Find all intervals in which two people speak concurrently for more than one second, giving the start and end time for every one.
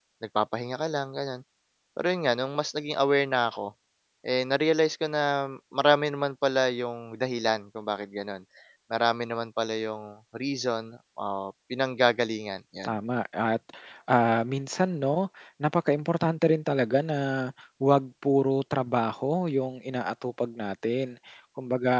none

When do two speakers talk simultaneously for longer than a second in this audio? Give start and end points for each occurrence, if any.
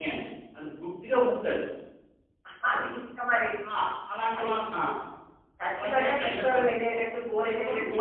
5.8-7.0

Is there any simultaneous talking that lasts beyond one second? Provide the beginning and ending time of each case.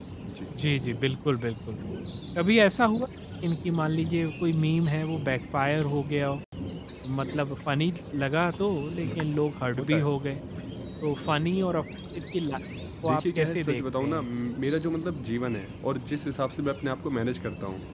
13.0-14.3

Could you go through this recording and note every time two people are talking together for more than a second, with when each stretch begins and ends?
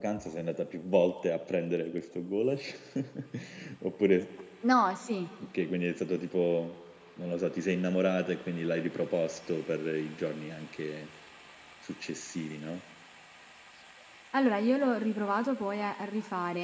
none

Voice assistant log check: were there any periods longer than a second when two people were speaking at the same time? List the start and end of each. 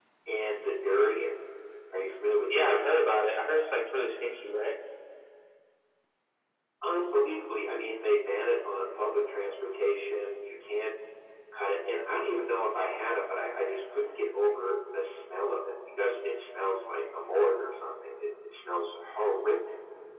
none

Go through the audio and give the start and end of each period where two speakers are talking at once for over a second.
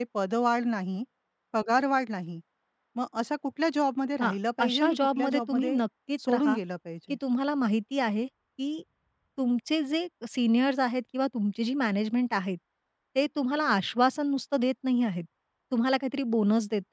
4.2-5.8

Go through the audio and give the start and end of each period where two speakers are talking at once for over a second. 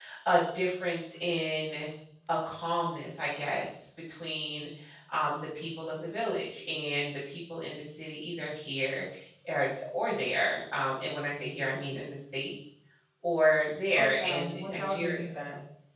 14.0-15.2

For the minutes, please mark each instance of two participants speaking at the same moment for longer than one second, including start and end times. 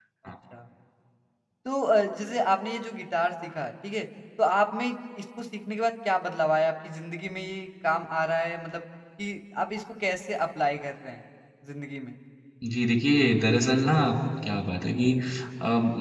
none

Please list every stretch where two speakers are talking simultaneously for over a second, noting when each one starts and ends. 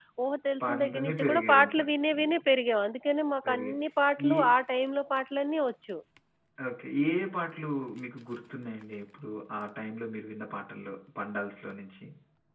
0.6-1.8

